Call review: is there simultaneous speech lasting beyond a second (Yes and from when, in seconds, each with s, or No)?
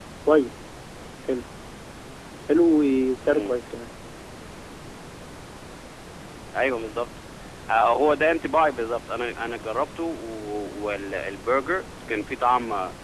No